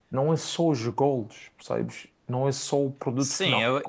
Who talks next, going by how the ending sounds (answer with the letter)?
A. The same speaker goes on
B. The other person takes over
B